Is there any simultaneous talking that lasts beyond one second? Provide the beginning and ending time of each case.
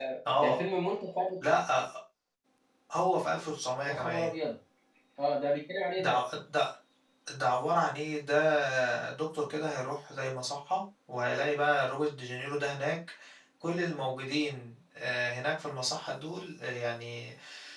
none

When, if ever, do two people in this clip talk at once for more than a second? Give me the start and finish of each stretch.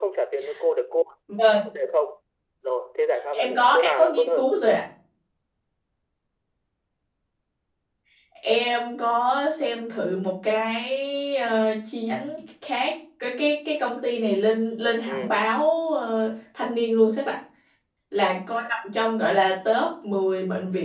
3.3-4.5

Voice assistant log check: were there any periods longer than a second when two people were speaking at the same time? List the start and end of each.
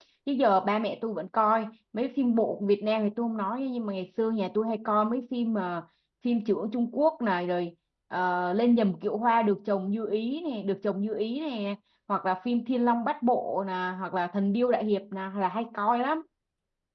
none

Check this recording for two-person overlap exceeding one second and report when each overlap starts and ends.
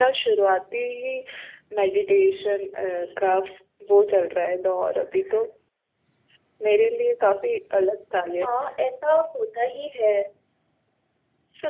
none

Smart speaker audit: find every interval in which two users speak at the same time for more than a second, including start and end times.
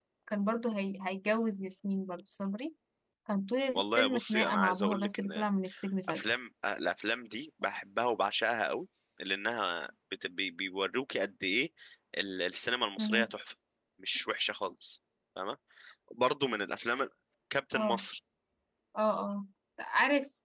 3.7-5.4

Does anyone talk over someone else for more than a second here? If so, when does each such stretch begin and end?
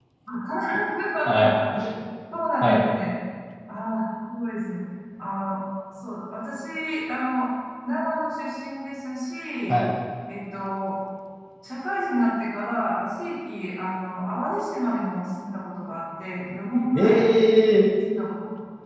none

